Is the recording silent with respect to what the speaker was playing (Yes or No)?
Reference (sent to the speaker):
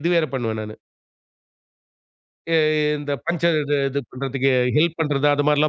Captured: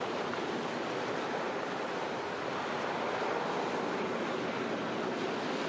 Yes